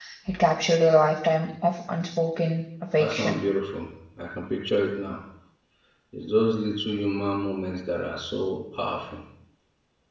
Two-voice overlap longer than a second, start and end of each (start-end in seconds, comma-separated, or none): none